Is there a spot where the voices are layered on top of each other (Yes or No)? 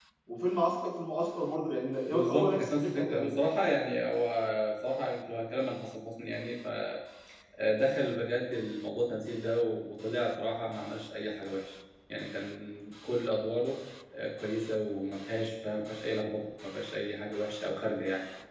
Yes